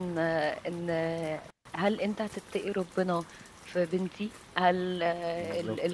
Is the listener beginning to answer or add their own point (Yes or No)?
No